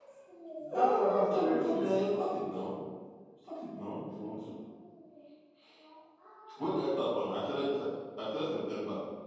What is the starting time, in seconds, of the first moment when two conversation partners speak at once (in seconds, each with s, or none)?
0.7 s